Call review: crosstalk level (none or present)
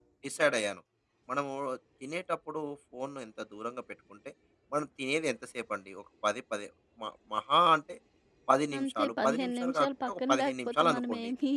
present